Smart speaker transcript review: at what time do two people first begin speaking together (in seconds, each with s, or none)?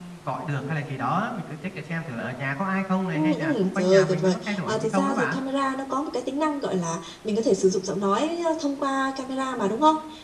3.1 s